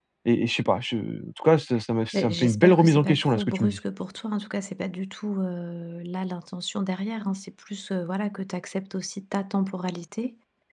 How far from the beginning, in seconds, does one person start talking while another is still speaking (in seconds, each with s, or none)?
2.1 s